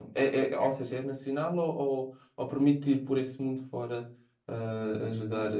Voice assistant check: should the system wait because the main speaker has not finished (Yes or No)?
No